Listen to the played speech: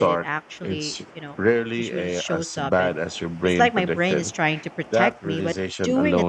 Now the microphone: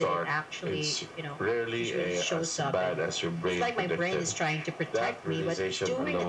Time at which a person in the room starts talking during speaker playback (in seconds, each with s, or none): none